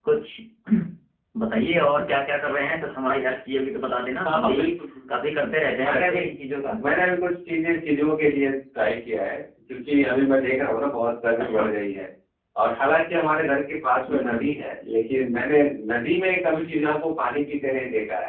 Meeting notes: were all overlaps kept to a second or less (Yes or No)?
Yes